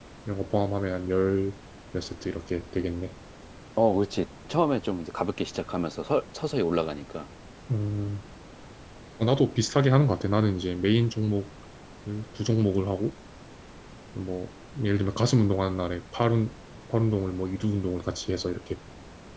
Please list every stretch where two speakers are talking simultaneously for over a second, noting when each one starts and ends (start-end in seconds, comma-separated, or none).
none